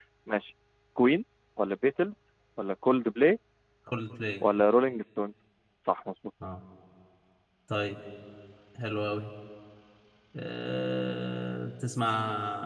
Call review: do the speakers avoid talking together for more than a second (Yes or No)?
Yes